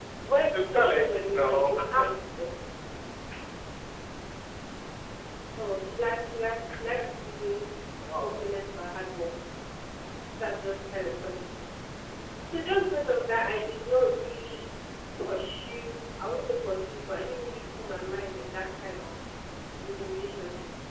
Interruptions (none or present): present